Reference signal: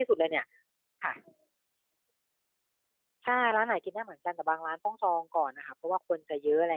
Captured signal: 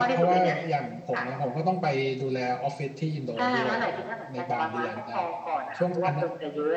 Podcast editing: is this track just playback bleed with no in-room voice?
No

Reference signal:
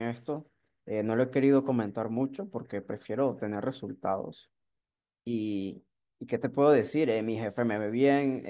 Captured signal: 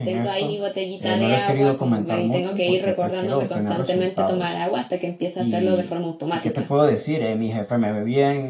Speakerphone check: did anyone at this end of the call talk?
Yes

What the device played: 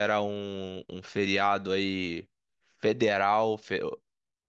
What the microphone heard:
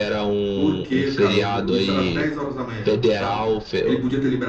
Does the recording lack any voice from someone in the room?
No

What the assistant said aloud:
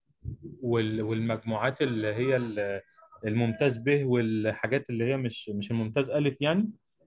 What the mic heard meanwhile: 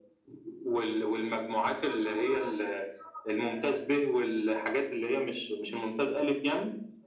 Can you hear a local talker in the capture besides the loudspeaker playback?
No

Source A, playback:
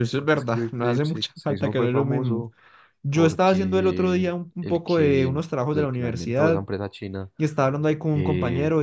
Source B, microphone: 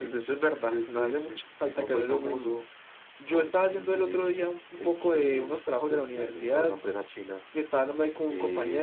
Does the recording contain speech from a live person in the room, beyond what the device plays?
No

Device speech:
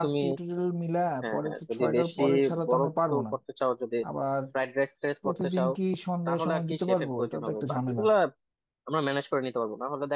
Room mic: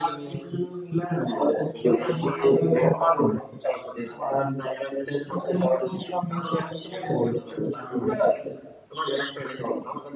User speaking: No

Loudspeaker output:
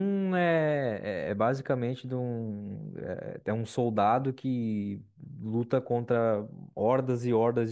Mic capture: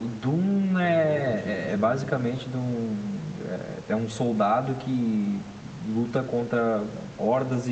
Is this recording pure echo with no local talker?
No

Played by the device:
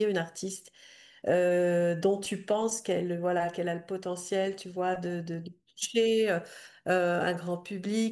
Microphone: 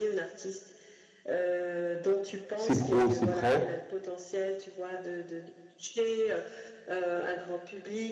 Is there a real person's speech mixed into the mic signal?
Yes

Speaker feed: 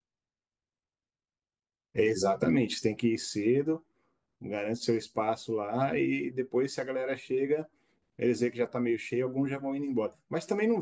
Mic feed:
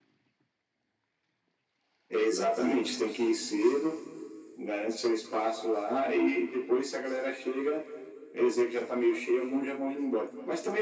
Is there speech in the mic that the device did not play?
No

